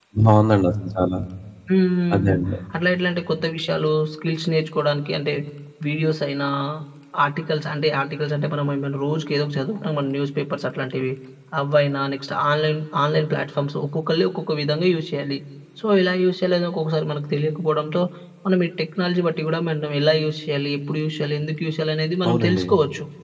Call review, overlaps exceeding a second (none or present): none